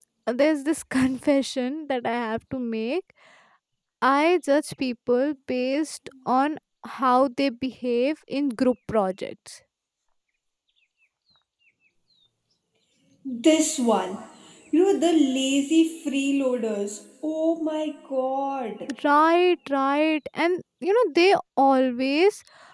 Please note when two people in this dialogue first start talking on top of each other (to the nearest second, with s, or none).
none